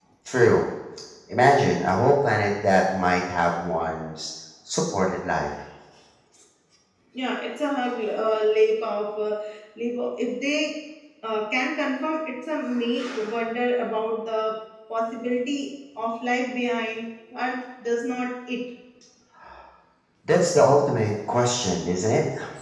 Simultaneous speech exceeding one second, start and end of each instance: none

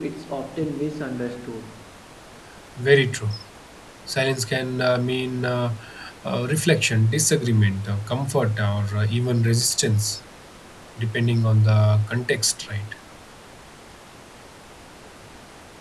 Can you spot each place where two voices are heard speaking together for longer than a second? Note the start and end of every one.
none

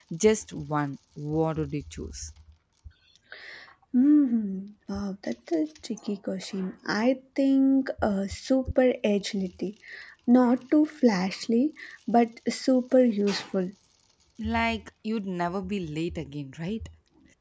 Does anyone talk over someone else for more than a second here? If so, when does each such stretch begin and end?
none

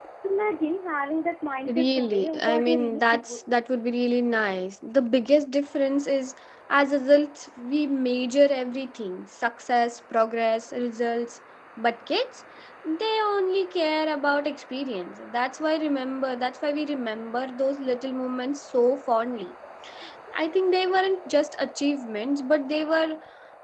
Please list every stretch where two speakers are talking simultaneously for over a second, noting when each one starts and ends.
1.7-3.7

